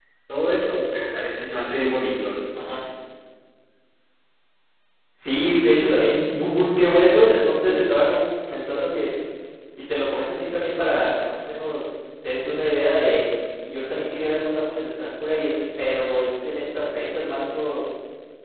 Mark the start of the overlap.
none

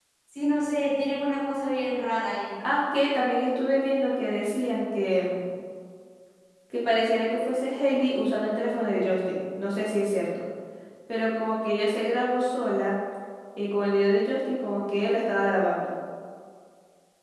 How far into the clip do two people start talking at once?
none

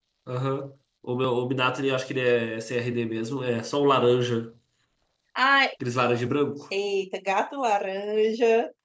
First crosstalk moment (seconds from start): none

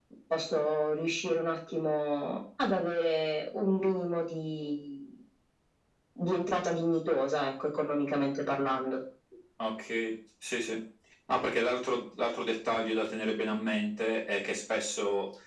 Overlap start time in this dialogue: none

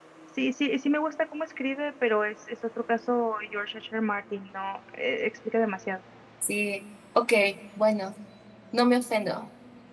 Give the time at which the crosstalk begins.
none

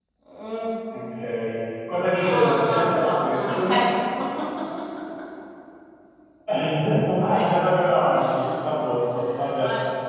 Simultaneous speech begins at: 2.2 s

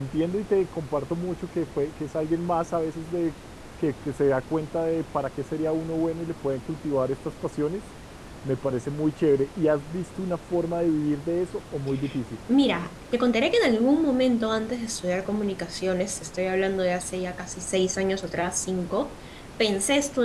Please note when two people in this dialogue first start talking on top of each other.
none

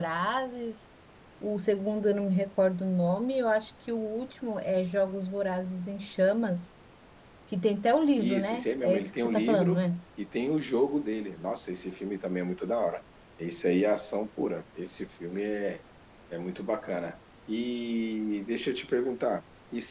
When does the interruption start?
8.2 s

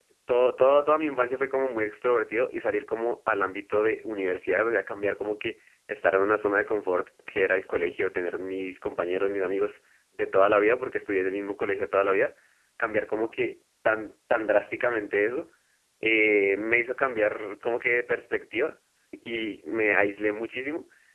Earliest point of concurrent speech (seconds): none

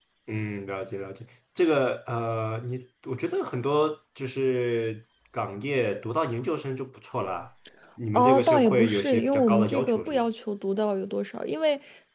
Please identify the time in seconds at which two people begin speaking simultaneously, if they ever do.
8.1 s

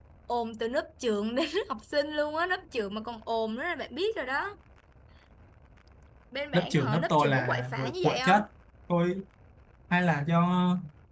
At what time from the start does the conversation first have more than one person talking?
6.5 s

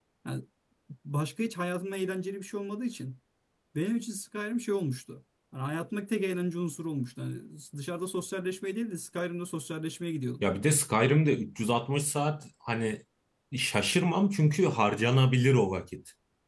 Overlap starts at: none

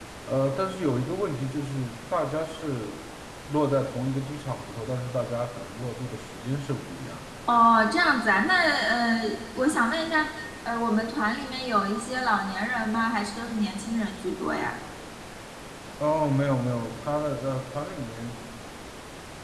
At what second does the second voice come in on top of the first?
none

